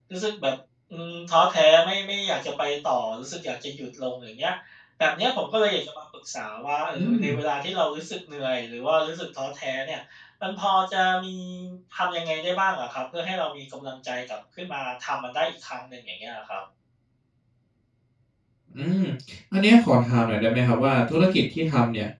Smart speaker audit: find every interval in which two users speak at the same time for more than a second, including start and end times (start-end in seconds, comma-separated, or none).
none